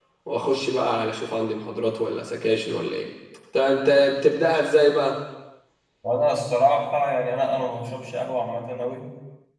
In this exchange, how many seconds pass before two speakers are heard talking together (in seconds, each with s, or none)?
none